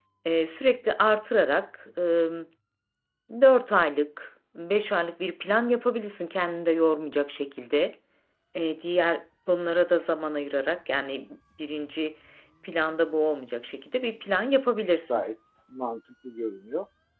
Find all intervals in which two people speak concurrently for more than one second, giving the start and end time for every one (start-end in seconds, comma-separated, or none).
none